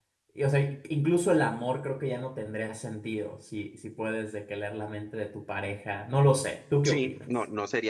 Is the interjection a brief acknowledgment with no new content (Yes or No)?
No